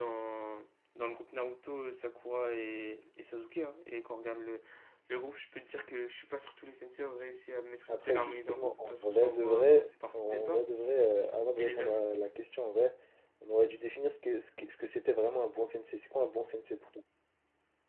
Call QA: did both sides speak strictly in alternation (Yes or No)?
No